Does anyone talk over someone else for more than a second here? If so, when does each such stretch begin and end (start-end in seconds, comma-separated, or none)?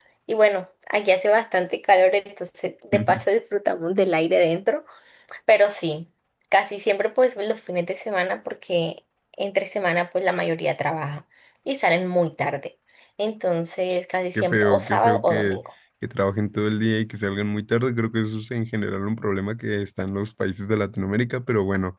14.3-15.6